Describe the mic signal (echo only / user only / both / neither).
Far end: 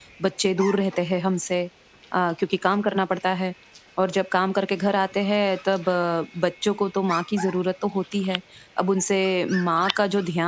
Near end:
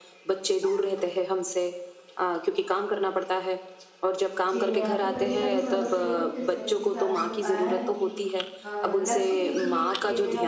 both